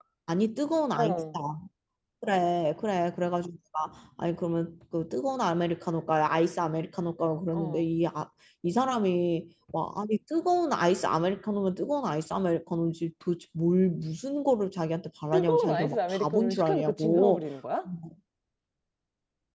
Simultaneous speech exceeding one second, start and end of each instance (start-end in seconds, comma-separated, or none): 15.3-17.5